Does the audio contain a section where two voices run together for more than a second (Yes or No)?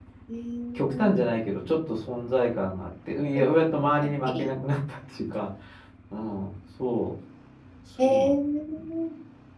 No